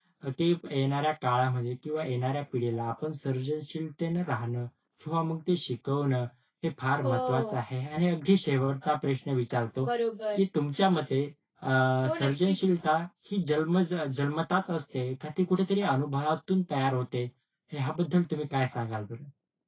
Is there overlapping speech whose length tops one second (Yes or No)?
No